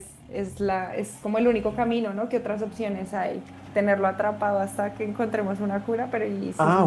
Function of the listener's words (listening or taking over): taking over